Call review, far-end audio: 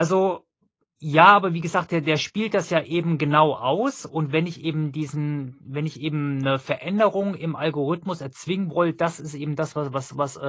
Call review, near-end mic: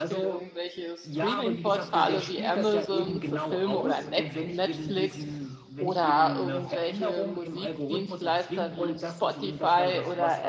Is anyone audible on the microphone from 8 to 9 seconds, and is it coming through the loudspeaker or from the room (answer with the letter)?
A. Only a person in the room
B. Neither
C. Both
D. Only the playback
C